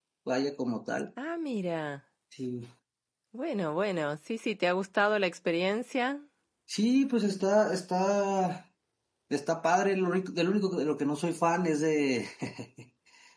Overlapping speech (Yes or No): No